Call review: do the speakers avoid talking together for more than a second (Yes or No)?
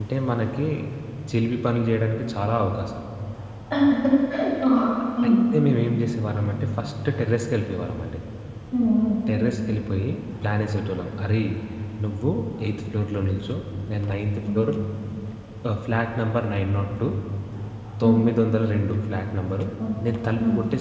Yes